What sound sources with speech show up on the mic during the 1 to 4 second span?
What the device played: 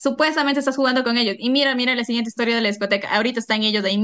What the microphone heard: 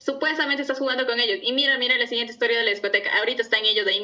echo only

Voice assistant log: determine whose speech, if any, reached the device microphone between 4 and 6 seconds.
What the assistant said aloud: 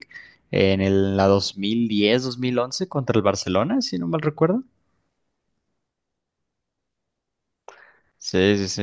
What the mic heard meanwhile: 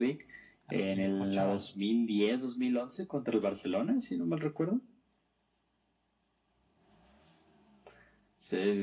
echo only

